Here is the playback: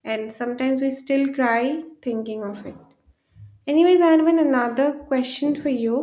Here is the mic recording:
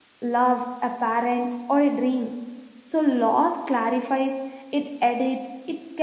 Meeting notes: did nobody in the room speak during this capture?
No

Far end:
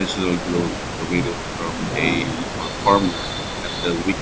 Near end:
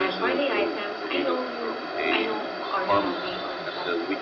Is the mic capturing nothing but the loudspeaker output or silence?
No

